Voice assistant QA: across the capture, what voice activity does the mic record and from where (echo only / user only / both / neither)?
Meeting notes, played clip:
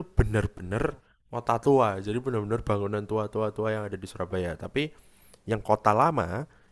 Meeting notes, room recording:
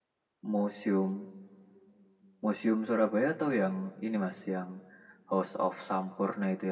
user only